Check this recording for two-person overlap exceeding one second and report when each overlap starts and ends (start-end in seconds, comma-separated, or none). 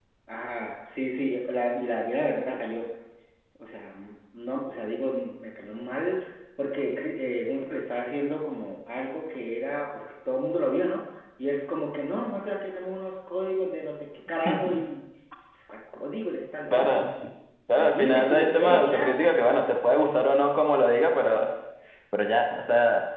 17.7-19.1